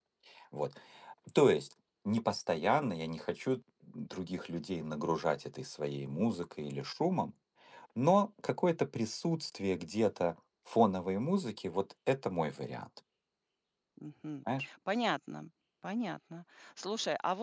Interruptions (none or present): none